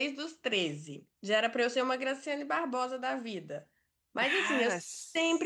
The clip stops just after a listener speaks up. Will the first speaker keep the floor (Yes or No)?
Yes